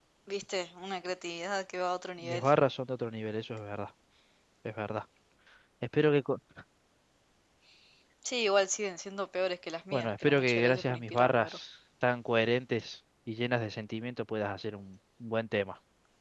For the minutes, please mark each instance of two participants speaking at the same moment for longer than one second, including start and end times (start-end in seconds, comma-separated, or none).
9.9-11.6